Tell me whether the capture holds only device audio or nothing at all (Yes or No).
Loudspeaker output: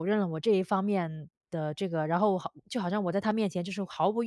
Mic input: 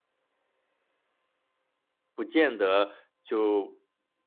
No